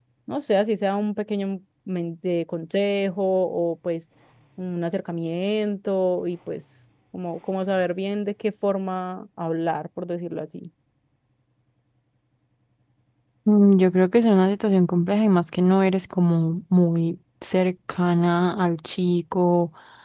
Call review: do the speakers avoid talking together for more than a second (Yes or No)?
Yes